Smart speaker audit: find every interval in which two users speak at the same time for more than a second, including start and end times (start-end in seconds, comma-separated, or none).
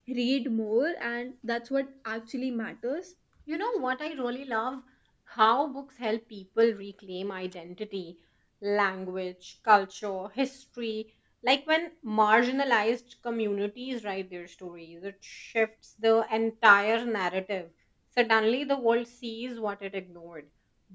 none